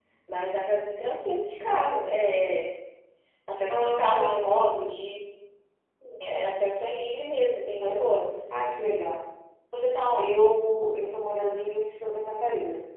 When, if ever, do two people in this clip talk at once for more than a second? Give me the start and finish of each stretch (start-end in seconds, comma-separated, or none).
3.7-5.0